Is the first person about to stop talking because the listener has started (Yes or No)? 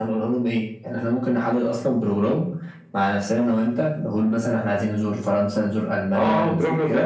Yes